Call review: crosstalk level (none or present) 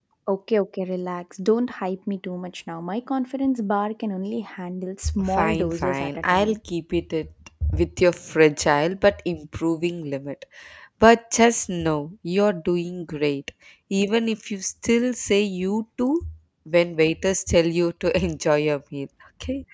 present